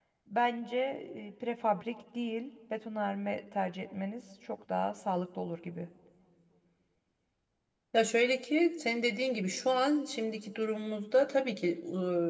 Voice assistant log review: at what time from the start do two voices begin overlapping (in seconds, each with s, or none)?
none